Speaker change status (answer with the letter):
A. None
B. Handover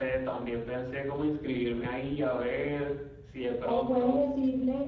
B